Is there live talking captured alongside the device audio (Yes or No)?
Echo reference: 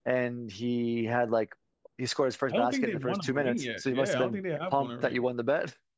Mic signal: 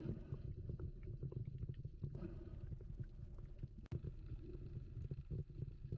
No